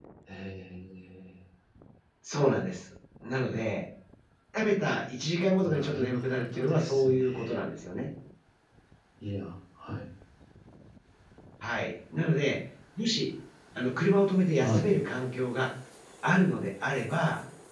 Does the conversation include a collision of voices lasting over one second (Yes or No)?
Yes